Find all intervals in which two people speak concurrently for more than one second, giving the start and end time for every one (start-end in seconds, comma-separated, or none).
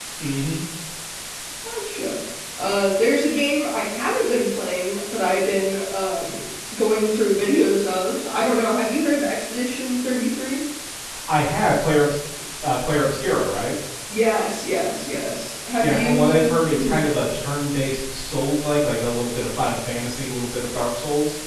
15.8-17.0